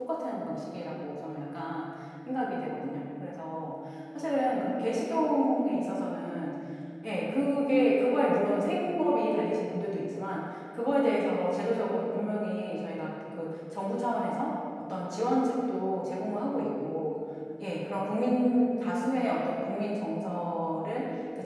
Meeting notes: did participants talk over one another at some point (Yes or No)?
No